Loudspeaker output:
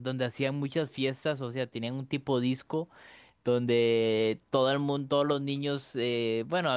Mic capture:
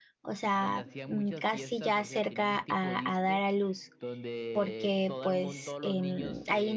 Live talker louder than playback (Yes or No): Yes